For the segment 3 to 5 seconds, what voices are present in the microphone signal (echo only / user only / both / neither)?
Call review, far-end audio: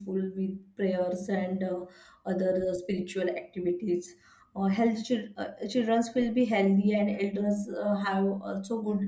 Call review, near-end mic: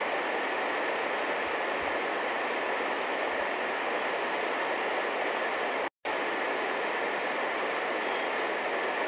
neither